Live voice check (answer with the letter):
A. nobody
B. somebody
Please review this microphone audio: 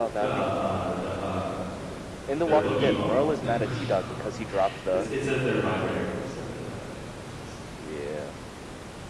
B